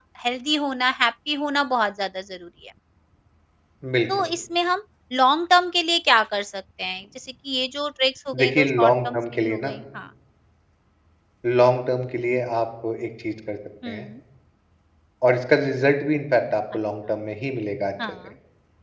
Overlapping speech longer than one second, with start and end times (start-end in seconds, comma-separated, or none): 8.4-9.8